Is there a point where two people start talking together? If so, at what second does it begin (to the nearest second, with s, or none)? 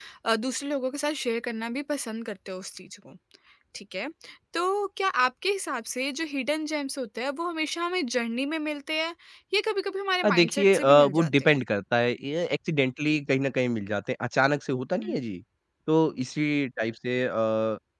10 s